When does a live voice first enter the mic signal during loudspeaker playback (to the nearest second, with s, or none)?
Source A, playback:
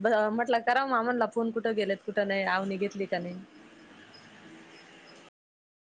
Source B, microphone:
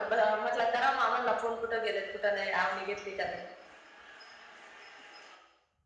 none